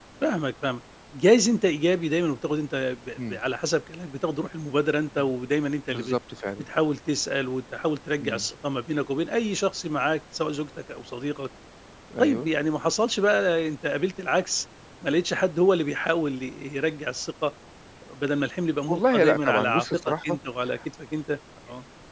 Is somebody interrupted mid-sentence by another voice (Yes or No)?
Yes